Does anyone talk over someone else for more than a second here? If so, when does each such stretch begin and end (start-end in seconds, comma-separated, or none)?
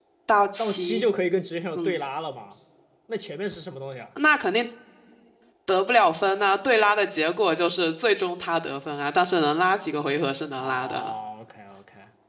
none